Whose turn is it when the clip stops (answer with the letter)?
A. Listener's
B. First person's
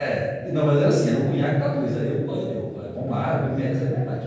B